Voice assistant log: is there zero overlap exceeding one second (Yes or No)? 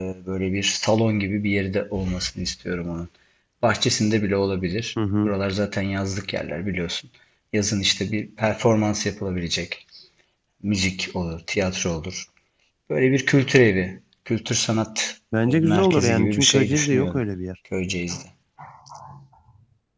No